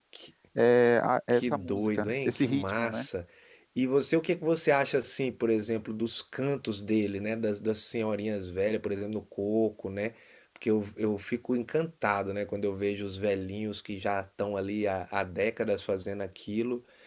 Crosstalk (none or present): present